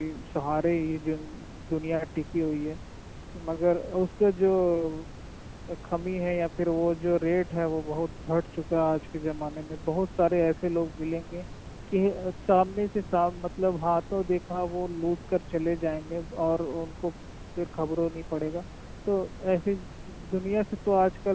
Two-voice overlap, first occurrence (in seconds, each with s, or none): none